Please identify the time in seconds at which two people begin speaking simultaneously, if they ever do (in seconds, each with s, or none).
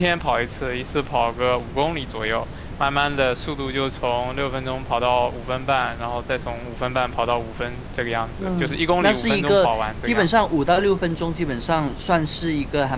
8.4 s